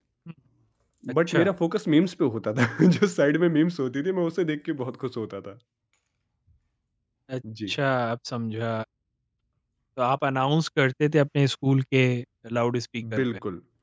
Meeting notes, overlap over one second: none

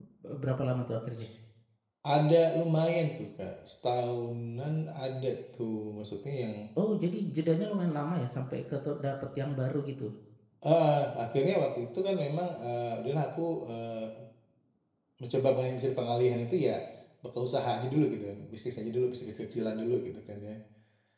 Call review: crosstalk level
none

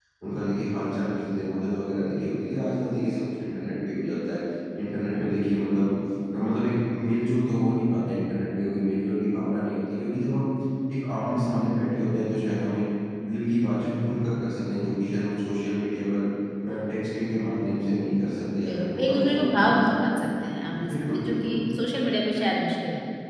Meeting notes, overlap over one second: present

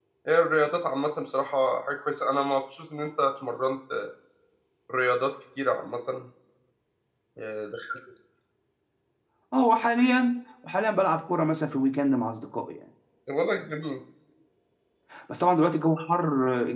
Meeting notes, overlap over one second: none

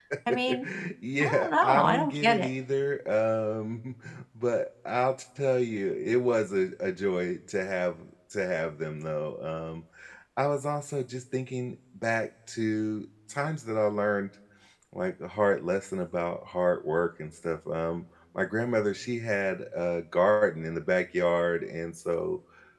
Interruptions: present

